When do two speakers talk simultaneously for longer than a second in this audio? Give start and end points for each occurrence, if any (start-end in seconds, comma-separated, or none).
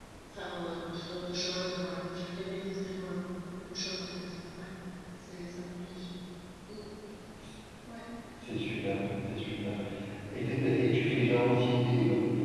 none